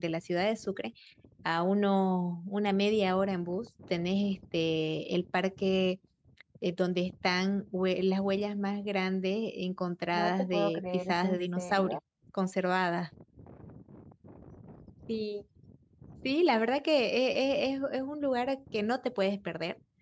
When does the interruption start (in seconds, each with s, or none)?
10.1 s